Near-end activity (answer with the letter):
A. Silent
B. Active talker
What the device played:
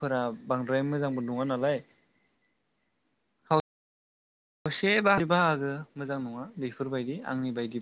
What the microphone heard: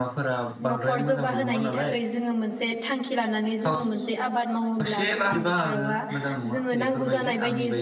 B